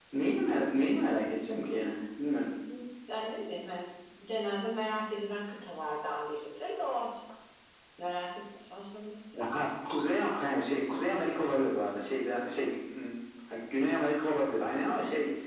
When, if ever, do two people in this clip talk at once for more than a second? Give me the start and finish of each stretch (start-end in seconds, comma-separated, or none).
none